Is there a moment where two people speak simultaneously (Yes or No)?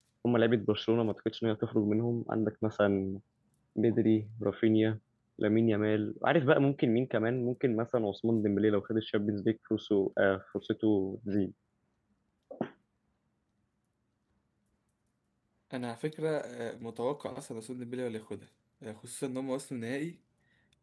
No